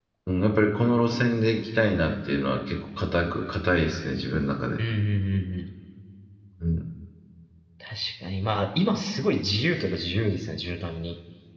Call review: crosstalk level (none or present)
none